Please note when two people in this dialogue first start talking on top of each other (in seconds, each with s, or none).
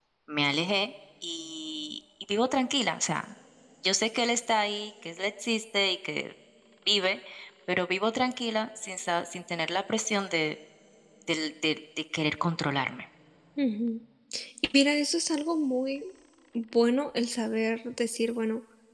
none